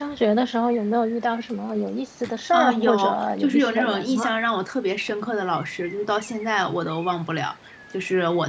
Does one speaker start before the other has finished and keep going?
Yes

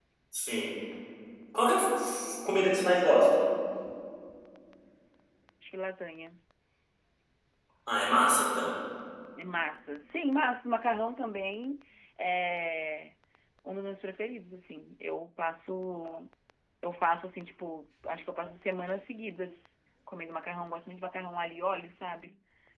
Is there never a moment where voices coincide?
Yes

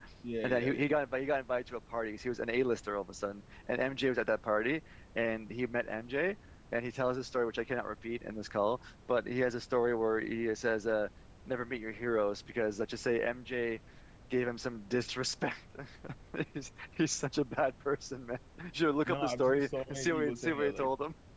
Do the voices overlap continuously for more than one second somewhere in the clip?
Yes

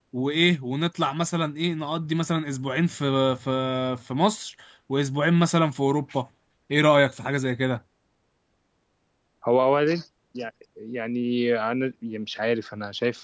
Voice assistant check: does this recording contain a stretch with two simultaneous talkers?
No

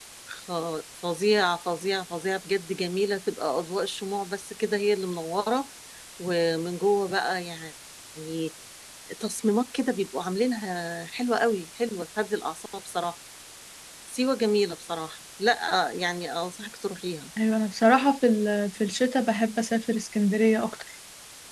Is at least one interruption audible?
No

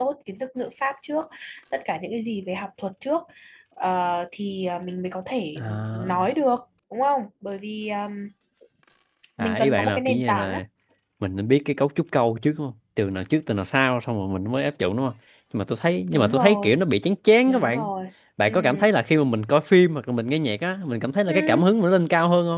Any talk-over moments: Yes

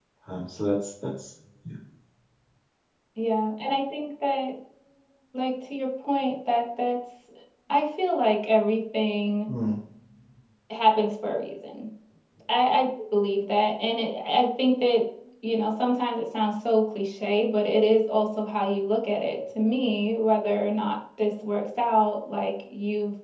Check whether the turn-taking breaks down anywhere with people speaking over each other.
No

